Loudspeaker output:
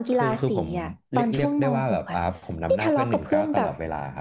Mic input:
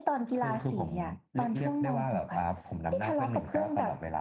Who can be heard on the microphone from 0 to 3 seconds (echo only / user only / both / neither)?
echo only